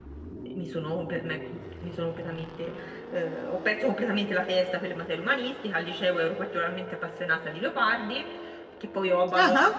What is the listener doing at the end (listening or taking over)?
listening